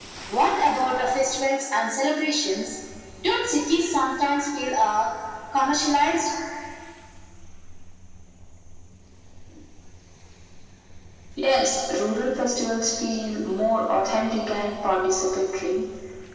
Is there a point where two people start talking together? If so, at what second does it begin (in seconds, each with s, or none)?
none